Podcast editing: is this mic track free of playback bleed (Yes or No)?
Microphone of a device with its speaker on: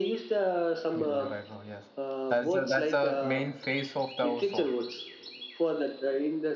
No